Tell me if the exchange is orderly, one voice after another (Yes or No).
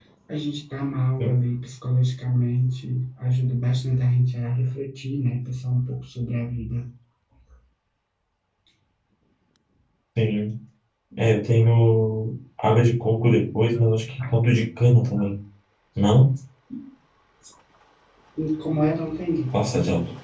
Yes